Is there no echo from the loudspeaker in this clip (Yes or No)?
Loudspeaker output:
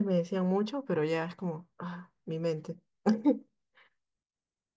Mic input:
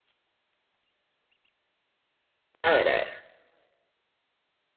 Yes